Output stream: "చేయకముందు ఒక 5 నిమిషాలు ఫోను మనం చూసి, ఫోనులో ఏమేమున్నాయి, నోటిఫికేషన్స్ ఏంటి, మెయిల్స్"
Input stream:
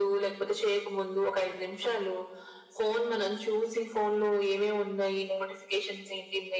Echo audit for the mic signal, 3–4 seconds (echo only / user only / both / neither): echo only